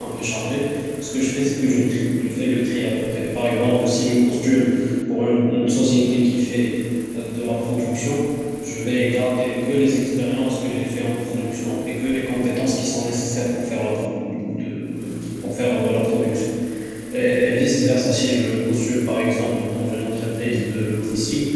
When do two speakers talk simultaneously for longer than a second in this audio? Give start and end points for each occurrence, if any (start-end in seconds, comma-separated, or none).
none